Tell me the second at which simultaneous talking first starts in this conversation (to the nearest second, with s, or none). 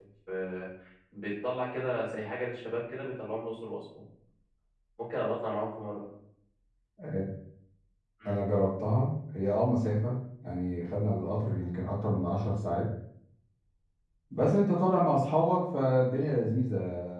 none